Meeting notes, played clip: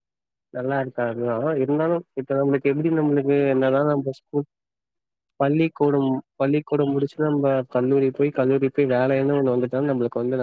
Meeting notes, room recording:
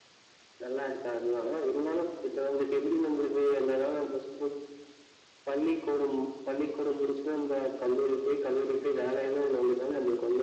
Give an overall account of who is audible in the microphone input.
echo only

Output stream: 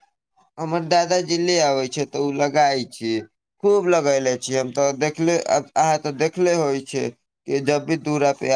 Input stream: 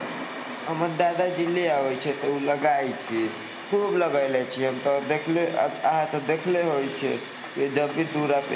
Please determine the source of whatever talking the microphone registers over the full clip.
echo only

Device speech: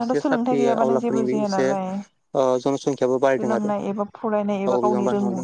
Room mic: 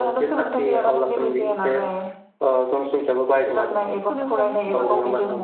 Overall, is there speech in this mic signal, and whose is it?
both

